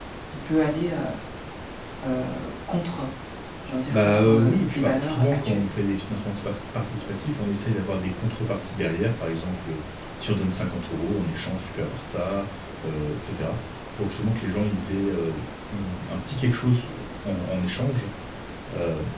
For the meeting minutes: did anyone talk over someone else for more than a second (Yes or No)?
Yes